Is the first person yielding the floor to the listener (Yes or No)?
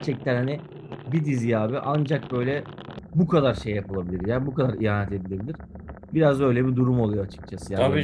Yes